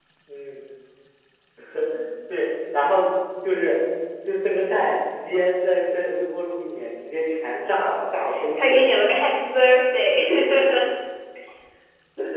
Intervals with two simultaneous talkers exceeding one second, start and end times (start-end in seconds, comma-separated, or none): none